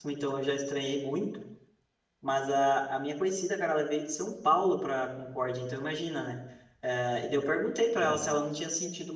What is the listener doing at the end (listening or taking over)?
listening